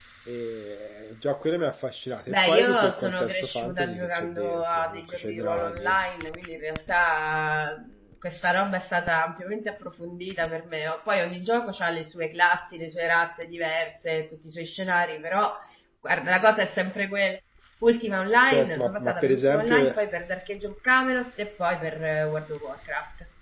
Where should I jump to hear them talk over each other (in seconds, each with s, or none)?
2.3 s